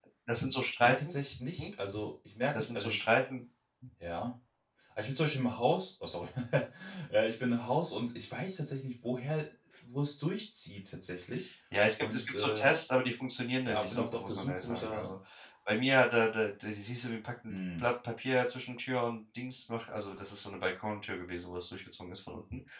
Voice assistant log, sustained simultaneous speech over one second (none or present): present